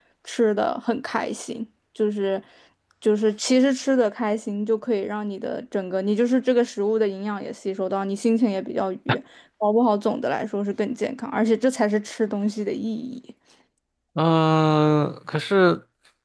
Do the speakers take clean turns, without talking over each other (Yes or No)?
Yes